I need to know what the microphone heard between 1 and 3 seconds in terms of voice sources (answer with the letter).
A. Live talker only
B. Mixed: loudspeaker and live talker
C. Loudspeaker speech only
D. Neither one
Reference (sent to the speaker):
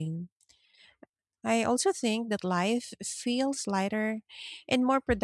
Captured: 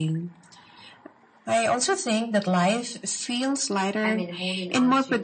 C